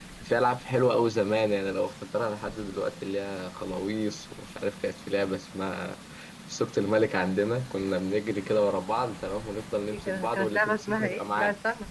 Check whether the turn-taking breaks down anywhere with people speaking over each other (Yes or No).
Yes